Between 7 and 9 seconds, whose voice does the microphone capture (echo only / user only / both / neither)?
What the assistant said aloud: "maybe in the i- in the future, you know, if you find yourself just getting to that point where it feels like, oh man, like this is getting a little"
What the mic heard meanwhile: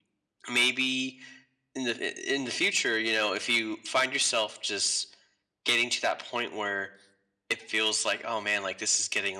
echo only